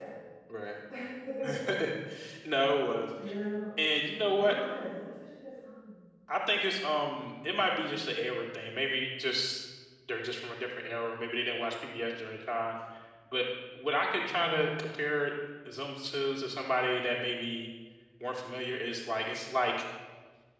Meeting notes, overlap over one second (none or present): none